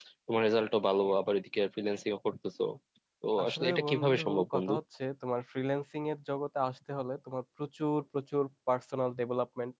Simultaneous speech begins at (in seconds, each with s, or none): 3.4 s